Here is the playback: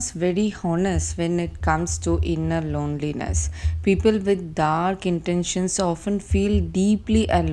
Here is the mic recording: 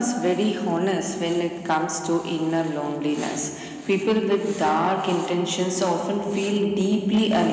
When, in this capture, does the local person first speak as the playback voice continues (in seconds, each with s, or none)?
none